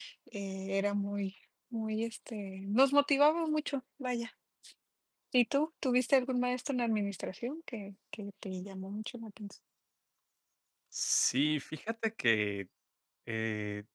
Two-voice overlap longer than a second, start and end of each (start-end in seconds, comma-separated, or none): none